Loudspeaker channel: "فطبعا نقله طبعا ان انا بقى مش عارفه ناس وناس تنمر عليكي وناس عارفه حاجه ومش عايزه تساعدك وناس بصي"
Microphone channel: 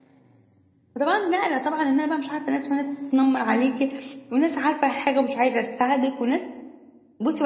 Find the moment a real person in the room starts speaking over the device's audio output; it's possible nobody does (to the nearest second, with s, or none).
none